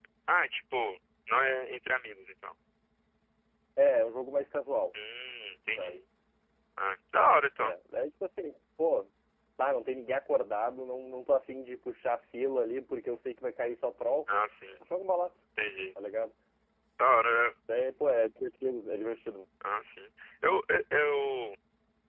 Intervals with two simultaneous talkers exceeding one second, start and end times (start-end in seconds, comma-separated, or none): none